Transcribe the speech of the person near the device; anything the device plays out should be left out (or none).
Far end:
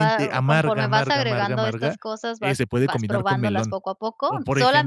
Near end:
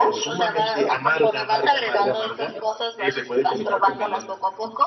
none